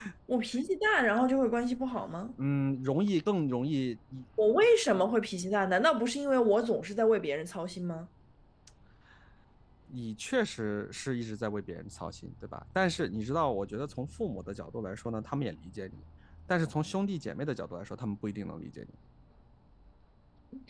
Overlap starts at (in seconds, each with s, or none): none